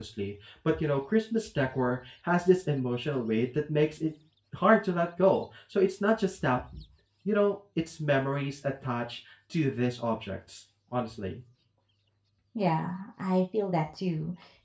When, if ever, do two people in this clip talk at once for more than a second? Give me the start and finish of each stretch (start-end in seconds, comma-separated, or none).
none